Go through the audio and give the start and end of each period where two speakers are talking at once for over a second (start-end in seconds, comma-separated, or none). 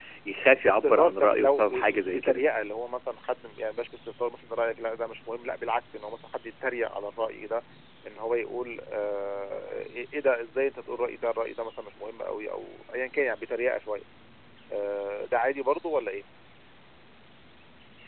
0.7-2.4